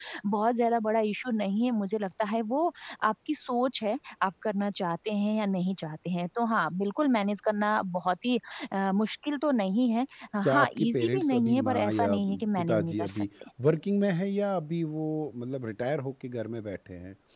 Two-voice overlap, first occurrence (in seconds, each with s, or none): 10.4 s